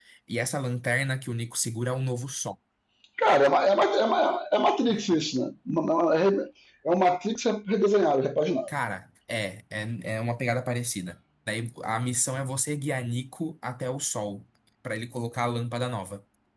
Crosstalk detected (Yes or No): No